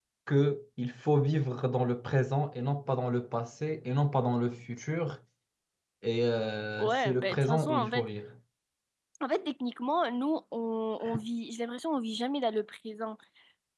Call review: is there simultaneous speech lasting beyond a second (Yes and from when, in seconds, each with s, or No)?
Yes, from 6.8 s